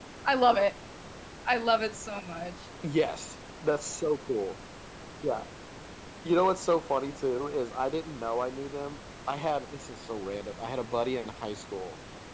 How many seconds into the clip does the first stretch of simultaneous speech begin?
none

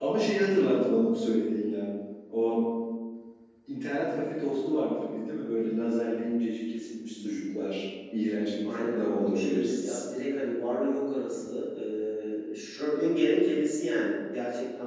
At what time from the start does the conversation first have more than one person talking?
8.6 s

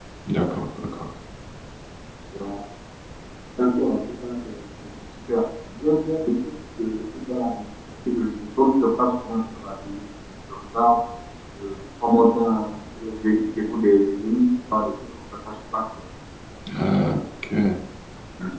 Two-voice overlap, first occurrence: none

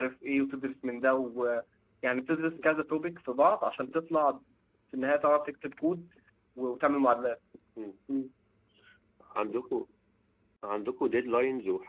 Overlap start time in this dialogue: none

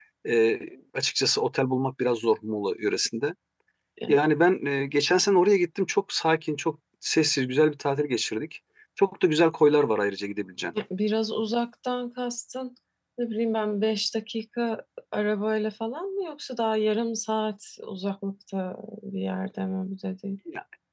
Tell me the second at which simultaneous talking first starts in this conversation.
none

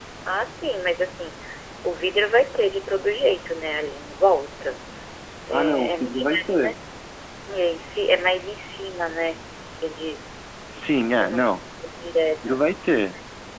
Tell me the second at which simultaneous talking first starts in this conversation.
5.5 s

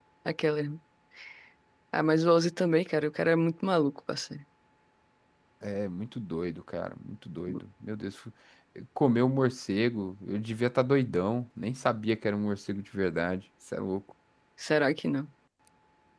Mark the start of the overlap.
none

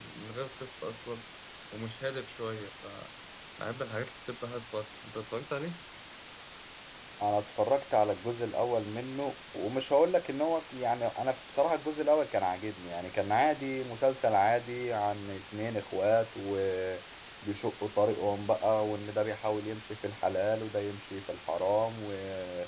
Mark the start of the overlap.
none

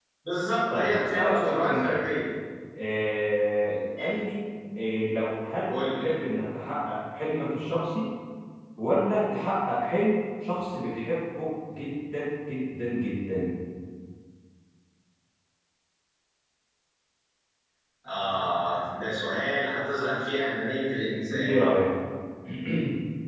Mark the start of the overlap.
0.7 s

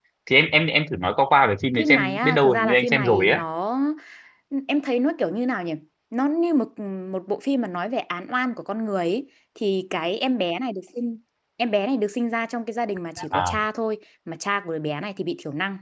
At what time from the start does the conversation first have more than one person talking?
1.8 s

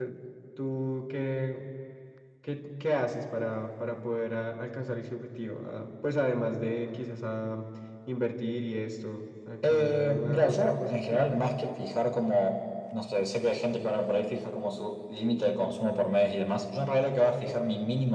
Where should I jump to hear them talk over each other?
9.6 s

